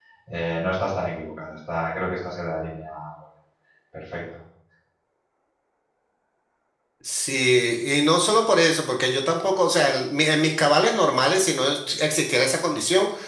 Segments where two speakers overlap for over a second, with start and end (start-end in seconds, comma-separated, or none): none